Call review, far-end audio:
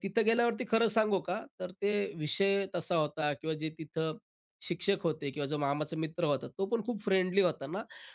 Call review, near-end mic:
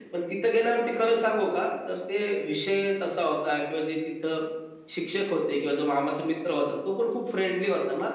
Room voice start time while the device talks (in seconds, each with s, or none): none